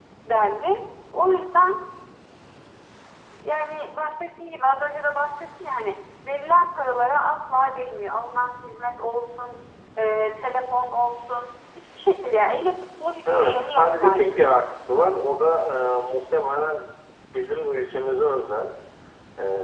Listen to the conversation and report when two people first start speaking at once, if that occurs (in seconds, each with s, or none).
13.2 s